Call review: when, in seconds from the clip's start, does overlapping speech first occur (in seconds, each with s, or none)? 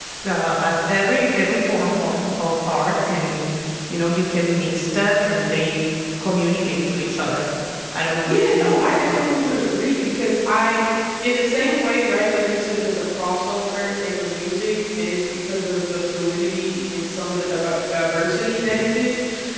8.2 s